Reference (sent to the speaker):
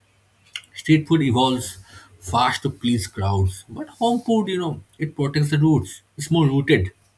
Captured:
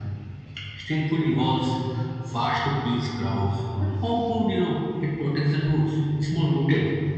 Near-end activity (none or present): none